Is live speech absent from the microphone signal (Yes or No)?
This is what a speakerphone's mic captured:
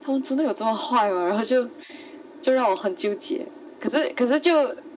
Yes